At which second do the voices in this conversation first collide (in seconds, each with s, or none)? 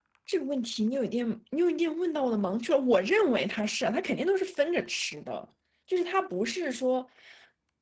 none